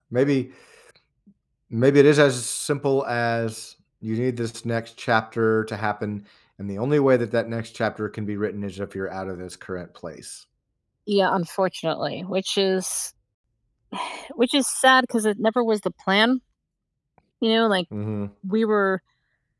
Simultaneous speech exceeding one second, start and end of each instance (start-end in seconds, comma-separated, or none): none